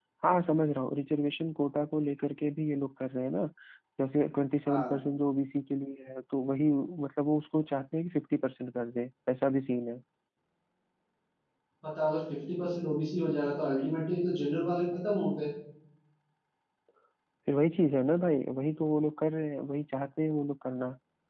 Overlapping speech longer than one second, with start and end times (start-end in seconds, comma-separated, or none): none